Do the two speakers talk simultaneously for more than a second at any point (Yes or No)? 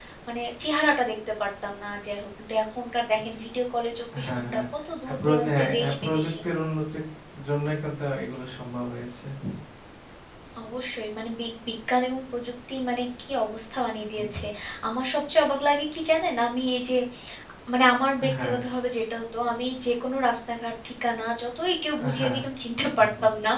Yes